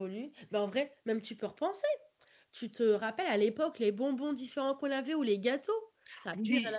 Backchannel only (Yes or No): No